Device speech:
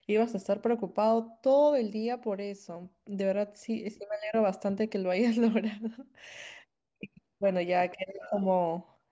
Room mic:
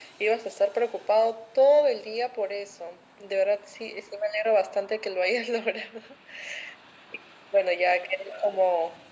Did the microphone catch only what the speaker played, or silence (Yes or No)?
Yes